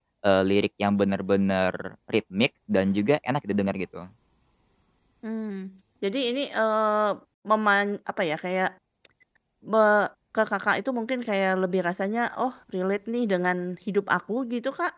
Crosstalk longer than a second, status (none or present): none